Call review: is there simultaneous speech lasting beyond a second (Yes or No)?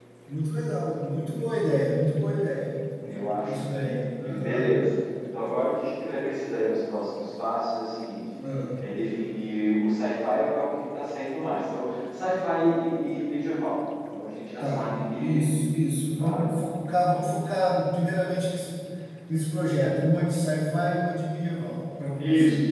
Yes